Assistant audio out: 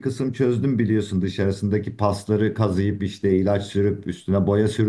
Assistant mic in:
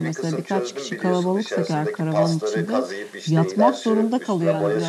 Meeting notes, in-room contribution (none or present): present